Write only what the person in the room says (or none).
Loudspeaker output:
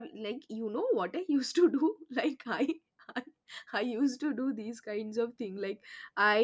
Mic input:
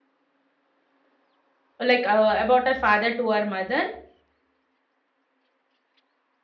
like uh, about her father to her mother